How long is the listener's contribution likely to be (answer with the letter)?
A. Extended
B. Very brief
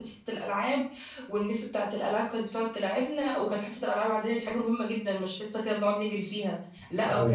B